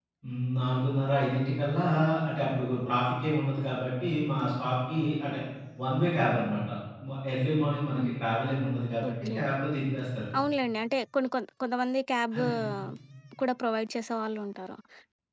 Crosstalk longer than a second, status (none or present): none